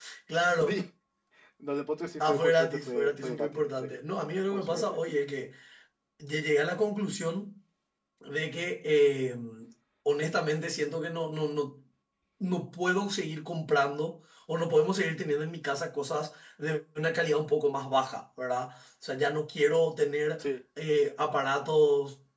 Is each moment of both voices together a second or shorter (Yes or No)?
No